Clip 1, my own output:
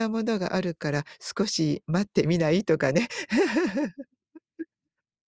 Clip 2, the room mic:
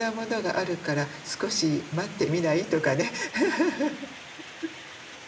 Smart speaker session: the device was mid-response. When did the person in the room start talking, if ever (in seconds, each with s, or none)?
none